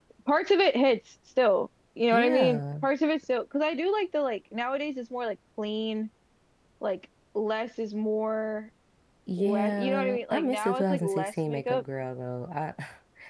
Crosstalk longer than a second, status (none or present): present